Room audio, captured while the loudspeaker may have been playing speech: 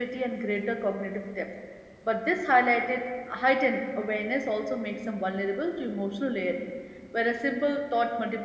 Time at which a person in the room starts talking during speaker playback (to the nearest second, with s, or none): none